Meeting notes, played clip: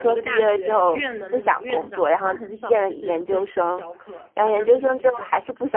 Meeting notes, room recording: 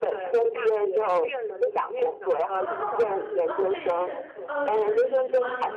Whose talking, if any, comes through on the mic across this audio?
both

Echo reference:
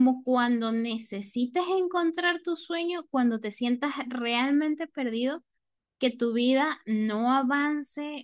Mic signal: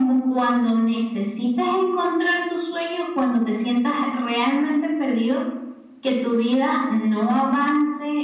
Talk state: echo only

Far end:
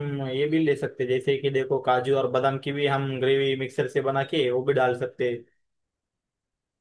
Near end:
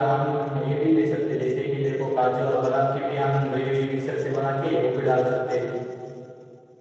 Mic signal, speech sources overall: echo only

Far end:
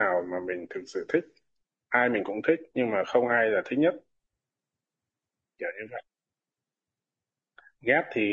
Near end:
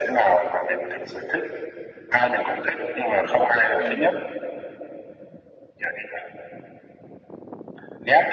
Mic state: both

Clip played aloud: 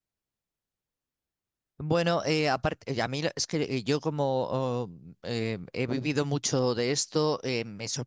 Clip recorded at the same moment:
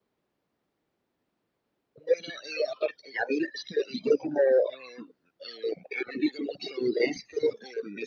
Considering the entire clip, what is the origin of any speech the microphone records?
echo only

